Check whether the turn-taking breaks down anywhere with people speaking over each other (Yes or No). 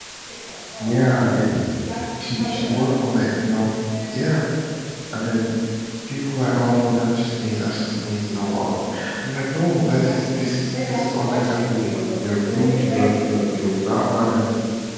Yes